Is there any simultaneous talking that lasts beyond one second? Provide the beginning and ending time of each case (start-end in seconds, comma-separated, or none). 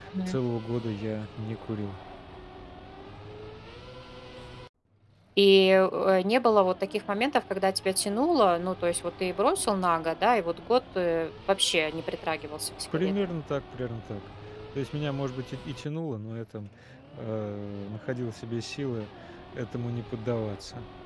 none